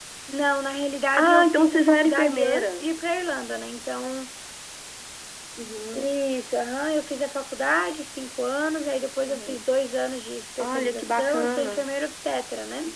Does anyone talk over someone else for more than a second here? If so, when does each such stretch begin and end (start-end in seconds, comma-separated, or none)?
1.1-2.8, 10.6-11.8